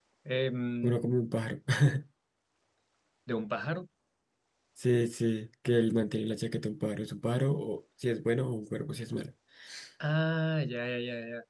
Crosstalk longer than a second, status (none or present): none